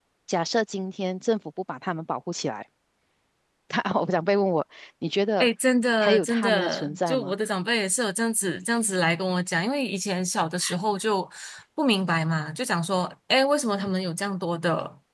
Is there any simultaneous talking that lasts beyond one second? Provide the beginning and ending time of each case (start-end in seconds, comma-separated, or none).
6.0-7.3